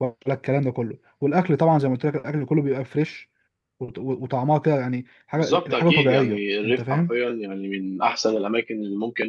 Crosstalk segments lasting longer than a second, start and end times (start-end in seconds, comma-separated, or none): 5.4-7.1